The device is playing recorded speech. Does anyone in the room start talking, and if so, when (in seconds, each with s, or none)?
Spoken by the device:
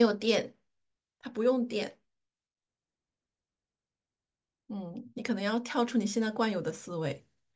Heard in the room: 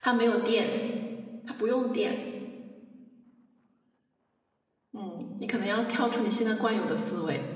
none